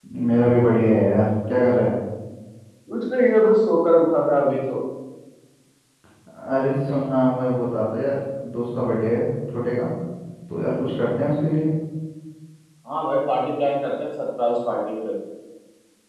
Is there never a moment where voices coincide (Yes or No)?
Yes